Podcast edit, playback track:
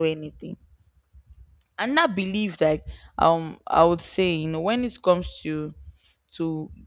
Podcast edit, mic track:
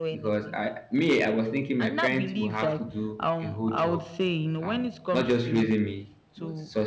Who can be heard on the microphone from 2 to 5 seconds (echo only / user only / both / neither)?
both